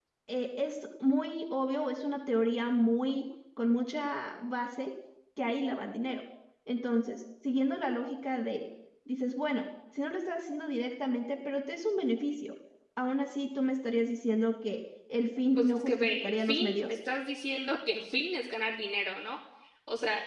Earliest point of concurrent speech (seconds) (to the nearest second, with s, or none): 16 s